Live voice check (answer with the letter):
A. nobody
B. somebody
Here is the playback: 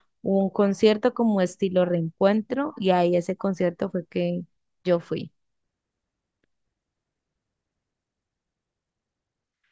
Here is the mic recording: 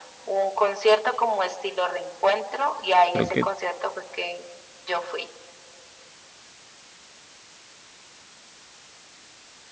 B